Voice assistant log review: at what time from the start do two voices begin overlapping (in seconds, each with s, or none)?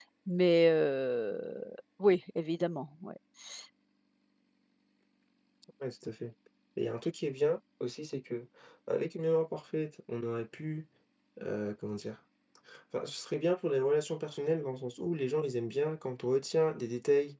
none